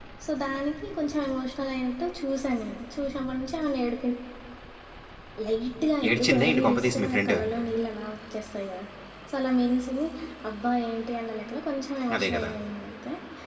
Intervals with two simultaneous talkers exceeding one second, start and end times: 6.1-7.4

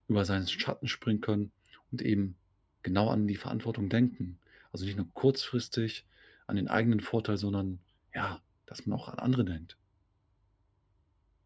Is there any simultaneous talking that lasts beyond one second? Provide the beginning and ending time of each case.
none

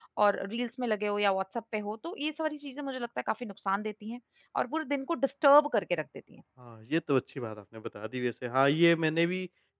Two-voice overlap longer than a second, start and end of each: none

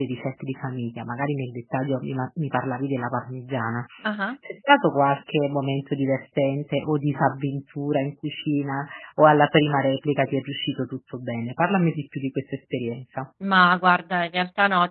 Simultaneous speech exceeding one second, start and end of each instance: none

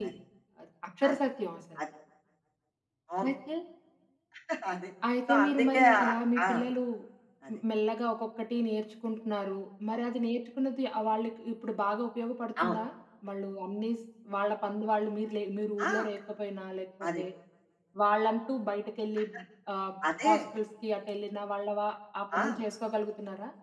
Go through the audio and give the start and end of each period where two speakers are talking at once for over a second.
5.3-6.5

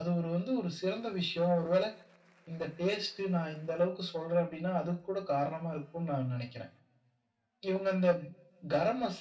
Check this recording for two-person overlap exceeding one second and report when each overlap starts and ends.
none

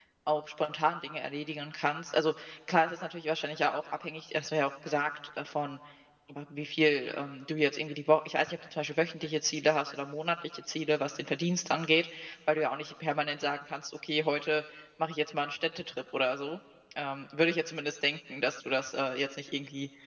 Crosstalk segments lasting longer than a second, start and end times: none

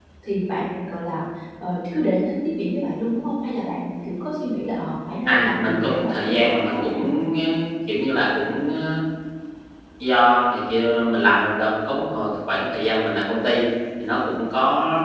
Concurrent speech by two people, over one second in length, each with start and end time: 5.3-7.2

